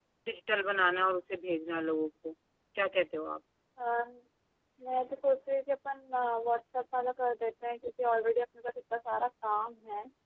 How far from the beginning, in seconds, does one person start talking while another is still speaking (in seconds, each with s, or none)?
none